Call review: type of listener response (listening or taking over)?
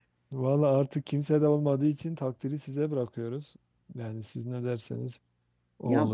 taking over